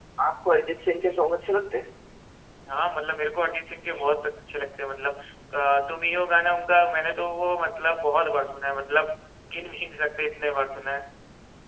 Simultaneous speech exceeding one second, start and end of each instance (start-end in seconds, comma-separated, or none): none